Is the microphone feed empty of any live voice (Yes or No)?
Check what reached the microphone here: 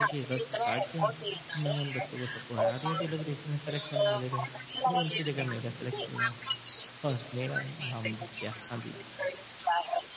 No